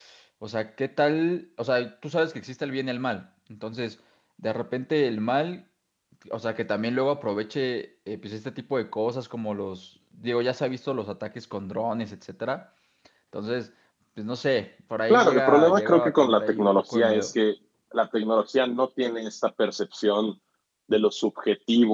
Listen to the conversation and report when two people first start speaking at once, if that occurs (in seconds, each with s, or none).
15.1 s